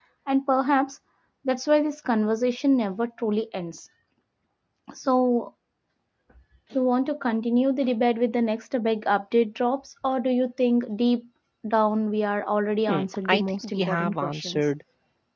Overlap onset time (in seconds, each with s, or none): 12.9 s